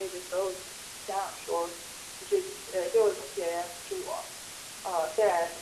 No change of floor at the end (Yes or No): Yes